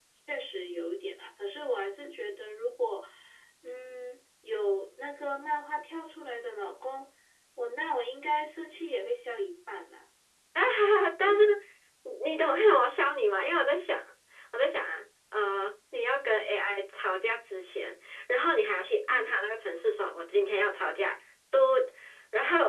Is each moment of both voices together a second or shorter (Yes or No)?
Yes